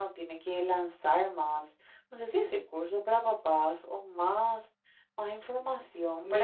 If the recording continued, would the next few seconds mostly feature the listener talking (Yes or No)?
Yes